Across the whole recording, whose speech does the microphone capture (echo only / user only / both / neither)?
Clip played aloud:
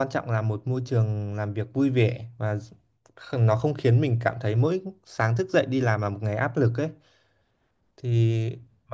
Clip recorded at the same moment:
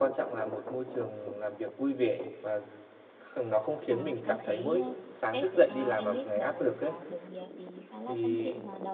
both